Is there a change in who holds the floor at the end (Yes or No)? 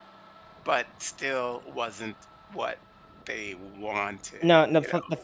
Yes